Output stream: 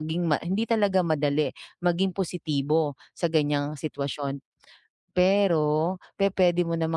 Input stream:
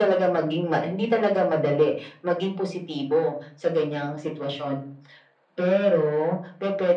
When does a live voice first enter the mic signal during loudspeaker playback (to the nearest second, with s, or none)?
none